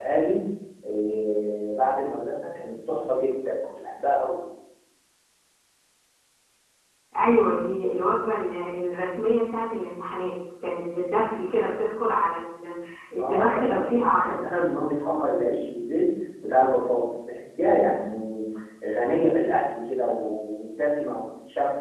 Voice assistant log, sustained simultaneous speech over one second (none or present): present